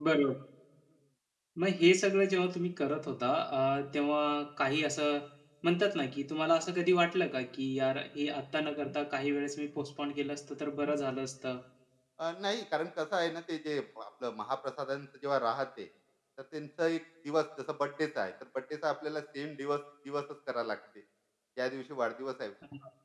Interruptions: none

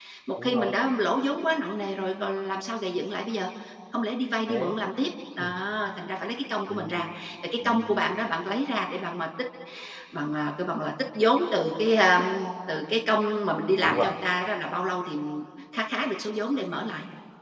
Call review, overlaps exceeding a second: none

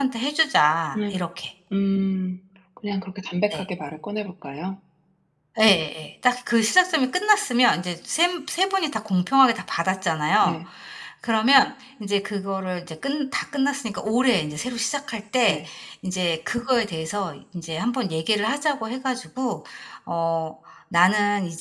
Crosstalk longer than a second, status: none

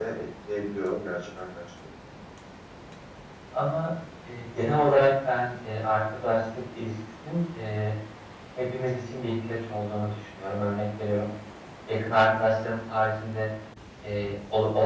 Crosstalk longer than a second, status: none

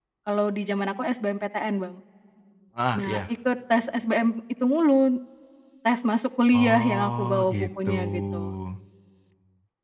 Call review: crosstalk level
present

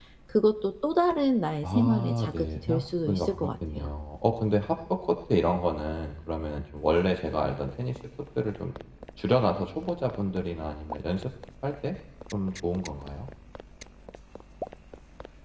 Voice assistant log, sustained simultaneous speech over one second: present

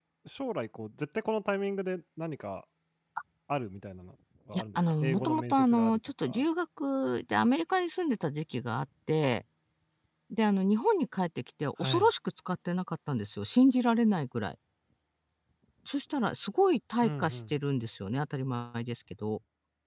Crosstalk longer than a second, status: present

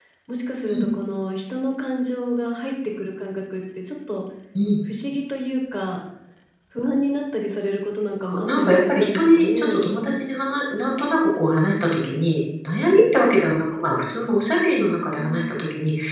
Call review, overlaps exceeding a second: present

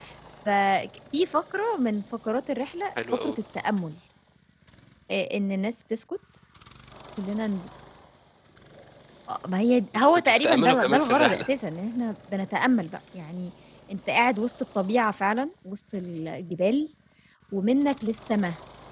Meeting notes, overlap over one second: present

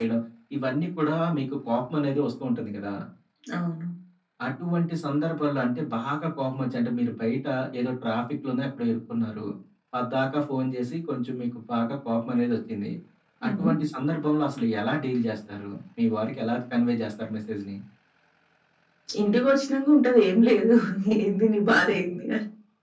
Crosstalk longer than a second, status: none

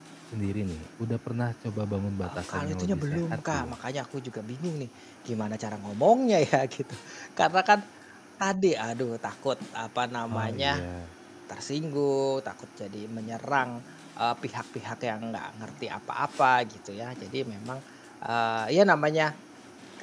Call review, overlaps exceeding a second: present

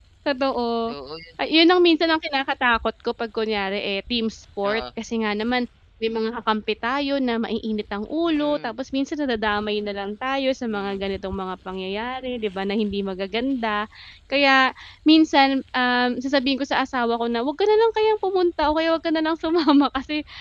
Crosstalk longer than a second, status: none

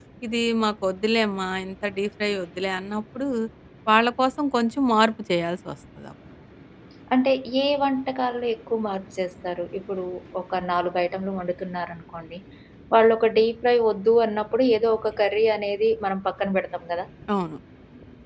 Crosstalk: none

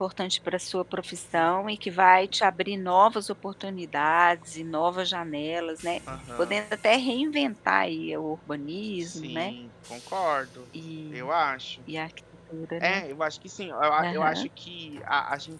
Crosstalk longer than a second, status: none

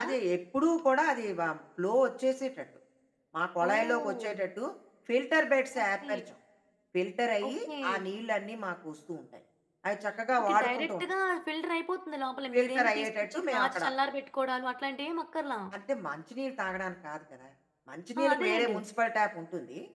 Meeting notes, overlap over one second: present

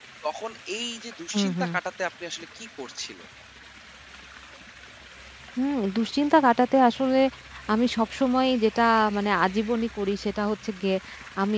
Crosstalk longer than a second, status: none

